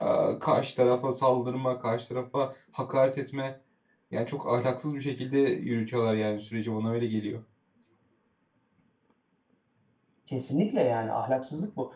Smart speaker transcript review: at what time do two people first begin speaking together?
none

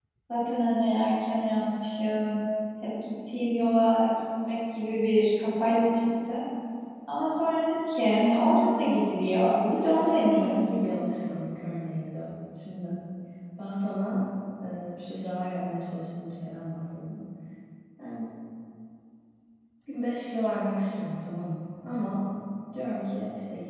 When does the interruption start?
9.4 s

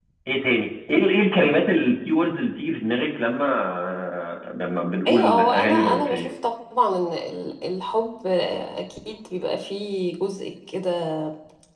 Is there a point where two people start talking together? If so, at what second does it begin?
5.1 s

